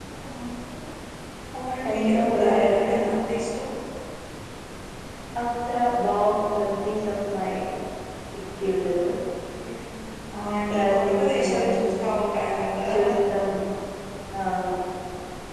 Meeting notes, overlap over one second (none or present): present